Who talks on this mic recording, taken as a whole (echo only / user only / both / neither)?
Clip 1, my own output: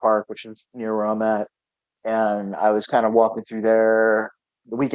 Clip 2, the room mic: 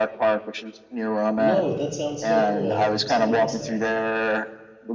both